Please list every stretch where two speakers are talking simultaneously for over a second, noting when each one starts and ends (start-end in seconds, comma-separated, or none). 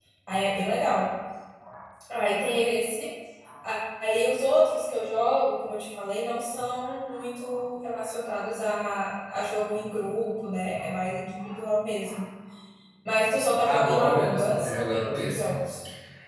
13.7-15.6